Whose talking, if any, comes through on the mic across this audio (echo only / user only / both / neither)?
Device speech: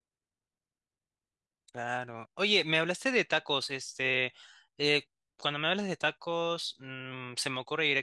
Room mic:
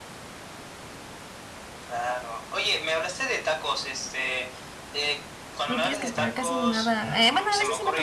both